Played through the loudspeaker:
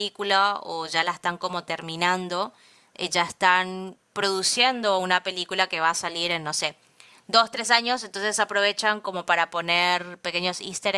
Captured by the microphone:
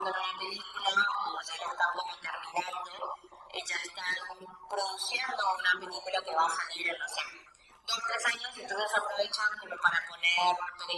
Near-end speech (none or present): none